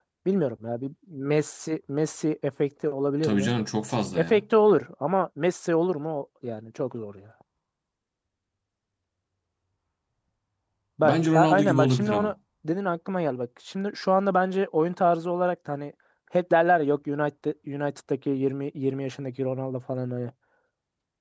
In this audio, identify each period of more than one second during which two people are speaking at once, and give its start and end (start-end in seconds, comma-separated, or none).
11.0-12.3